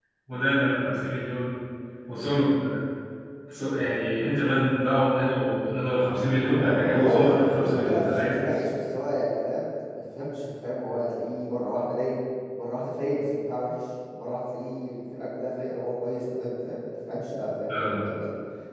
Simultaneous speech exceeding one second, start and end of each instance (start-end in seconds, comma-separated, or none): 6.5-8.4